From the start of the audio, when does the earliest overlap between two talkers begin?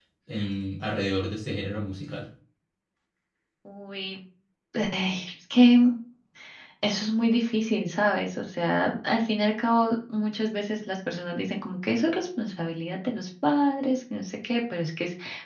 none

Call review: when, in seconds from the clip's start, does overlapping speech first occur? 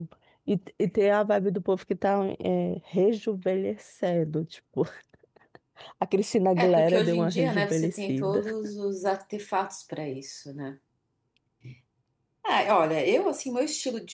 6.6 s

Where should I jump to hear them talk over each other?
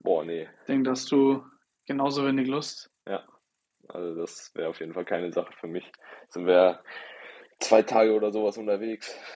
none

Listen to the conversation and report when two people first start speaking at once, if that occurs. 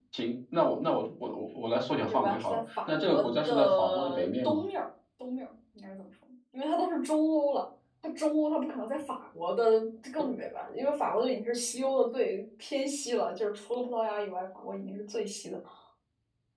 2.1 s

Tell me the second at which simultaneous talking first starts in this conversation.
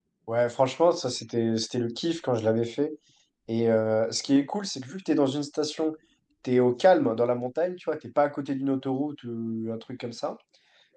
none

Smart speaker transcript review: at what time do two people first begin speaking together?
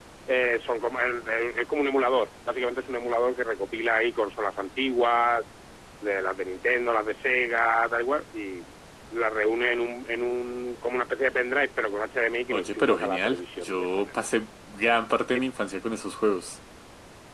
12.5 s

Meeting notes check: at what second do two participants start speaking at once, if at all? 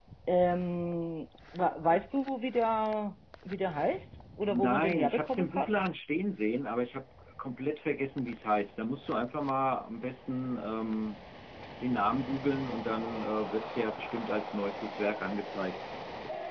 4.5 s

